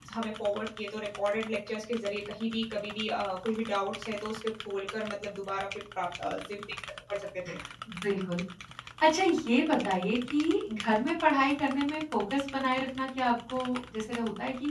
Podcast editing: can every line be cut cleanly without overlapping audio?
Yes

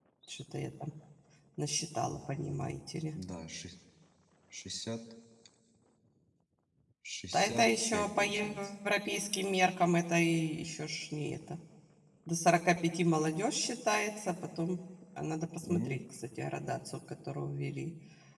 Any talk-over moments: Yes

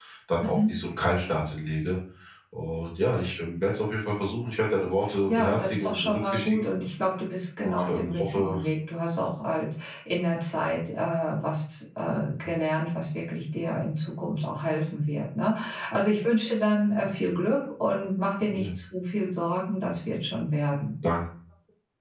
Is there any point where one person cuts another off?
Yes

